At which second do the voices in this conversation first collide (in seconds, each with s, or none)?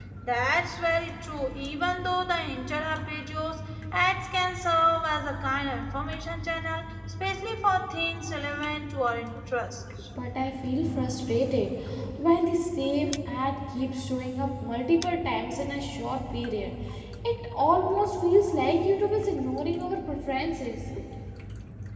none